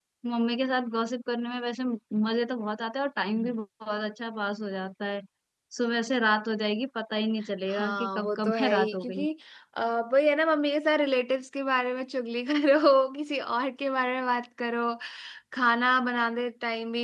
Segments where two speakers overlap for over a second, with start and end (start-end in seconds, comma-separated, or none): 7.7-9.2